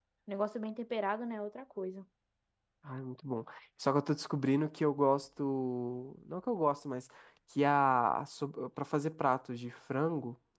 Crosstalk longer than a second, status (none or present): none